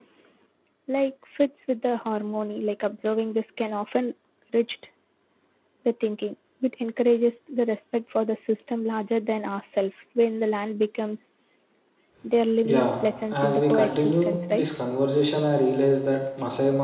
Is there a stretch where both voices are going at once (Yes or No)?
Yes